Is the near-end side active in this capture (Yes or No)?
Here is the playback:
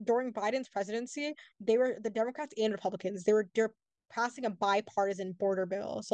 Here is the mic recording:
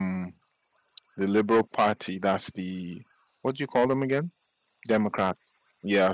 Yes